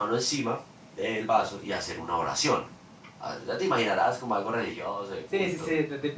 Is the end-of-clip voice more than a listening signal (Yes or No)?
Yes